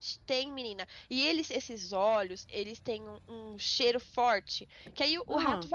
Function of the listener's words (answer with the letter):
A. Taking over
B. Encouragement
B